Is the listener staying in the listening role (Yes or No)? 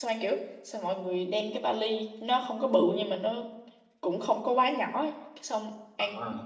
Yes